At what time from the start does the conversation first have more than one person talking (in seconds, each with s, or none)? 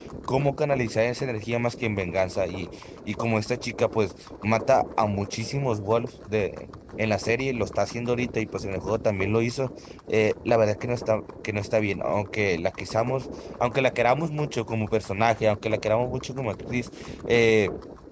none